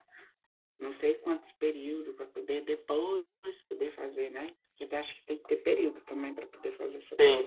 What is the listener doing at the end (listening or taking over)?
taking over